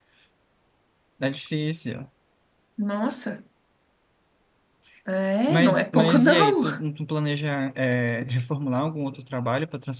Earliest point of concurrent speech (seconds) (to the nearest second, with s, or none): 5 s